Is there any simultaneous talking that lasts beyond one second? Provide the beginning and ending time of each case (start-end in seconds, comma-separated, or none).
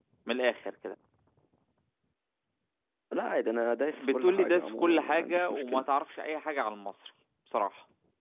3.9-5.9